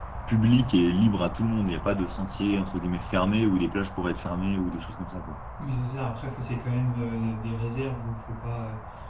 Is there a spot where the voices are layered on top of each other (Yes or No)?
No